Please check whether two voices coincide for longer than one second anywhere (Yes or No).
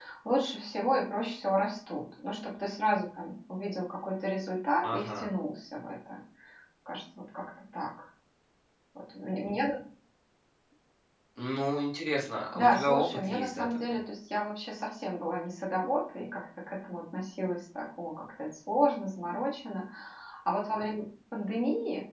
Yes